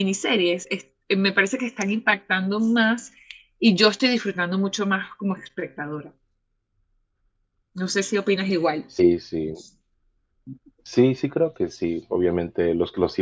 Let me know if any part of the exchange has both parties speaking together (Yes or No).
No